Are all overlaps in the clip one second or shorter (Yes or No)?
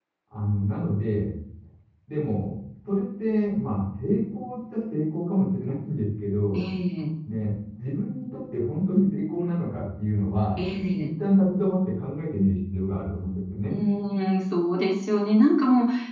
Yes